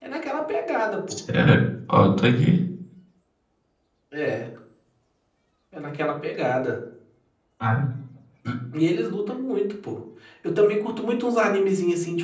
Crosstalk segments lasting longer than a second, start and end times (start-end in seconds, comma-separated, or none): none